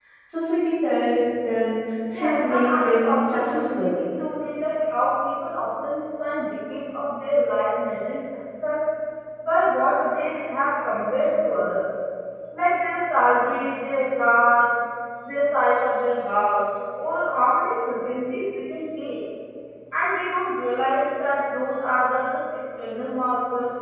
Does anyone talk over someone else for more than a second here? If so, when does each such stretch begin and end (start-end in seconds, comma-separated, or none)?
2.1-3.9